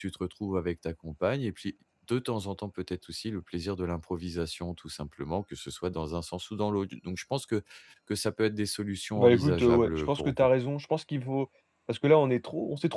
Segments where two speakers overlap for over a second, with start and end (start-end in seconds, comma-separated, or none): 9.2-10.5